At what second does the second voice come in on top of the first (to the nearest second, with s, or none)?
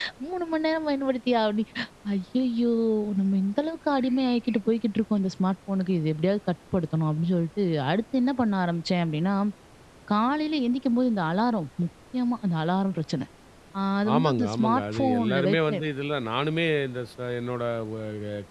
14 s